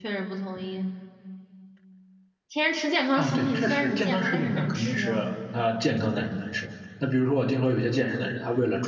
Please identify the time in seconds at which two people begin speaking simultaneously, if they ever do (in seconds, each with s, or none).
3.2 s